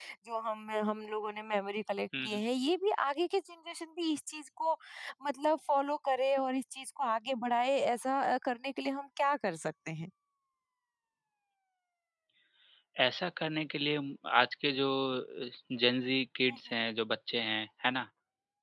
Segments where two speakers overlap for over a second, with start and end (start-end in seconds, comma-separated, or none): none